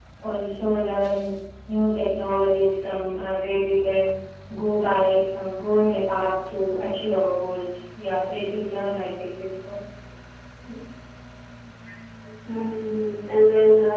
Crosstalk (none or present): none